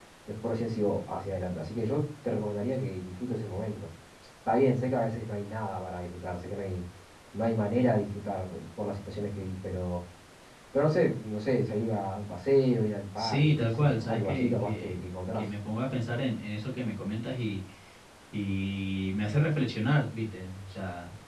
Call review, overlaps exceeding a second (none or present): present